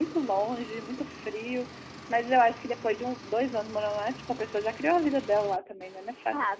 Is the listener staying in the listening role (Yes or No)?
No